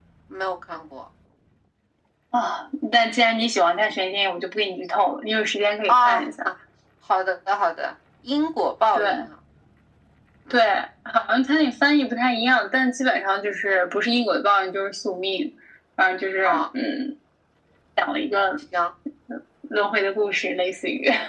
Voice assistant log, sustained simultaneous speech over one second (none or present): none